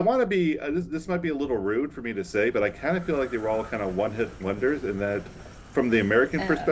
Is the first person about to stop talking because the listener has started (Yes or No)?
No